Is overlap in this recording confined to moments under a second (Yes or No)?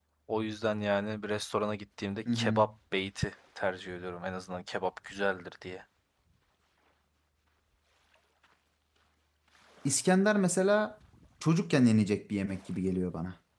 Yes